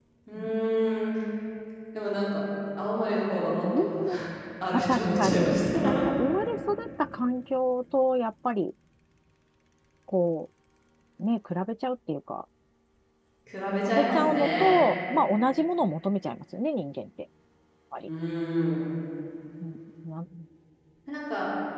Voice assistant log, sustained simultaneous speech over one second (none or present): present